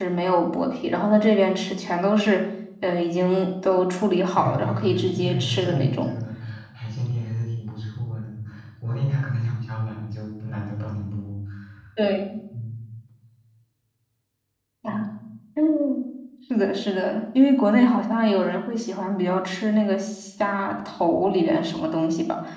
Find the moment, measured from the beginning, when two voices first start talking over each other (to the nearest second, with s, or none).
4 s